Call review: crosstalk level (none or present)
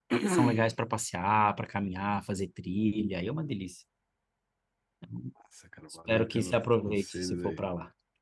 present